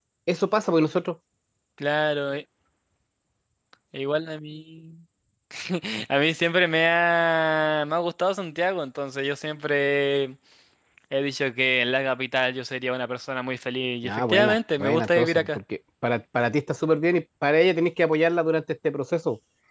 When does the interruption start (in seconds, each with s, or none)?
14.0 s